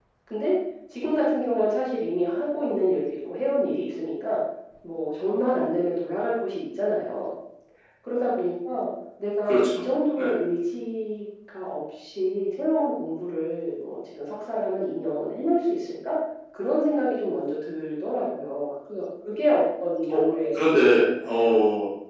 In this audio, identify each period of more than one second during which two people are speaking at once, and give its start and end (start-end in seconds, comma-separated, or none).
20.1-21.3